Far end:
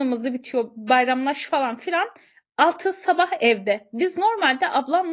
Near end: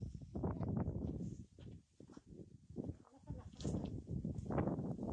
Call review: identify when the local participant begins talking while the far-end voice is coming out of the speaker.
none

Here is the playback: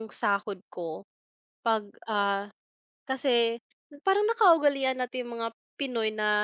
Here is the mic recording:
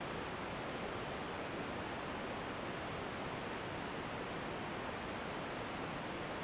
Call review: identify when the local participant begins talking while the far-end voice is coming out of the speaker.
none

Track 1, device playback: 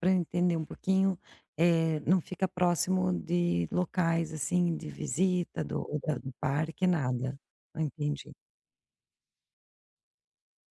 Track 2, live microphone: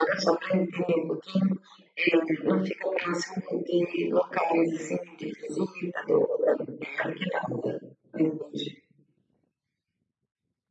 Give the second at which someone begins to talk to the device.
none

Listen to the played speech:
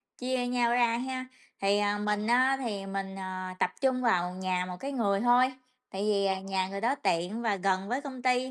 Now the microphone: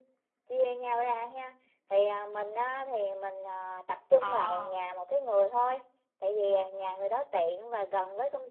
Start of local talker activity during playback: 4.2 s

